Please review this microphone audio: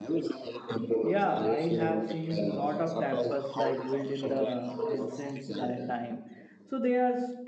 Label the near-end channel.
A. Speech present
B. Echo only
A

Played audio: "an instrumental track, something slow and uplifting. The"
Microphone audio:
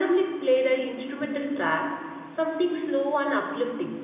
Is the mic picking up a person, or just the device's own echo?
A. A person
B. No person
B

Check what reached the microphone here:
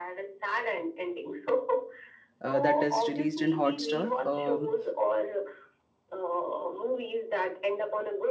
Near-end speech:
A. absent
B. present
B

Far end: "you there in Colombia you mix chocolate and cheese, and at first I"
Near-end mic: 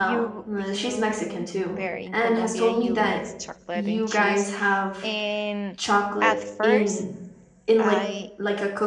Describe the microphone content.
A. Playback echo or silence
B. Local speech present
B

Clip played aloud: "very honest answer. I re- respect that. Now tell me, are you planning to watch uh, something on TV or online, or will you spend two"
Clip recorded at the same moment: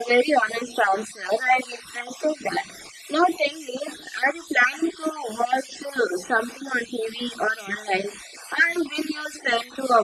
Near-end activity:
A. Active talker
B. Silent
B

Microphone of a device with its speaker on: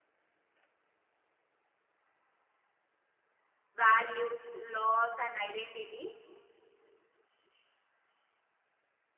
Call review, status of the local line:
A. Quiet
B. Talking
B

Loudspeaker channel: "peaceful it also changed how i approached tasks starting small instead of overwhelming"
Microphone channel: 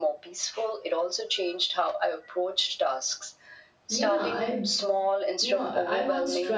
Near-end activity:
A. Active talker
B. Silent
A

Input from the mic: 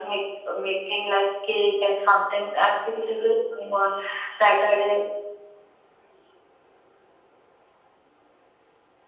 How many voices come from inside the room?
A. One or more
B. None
B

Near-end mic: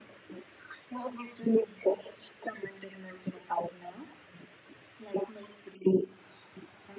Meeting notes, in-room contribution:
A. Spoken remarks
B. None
B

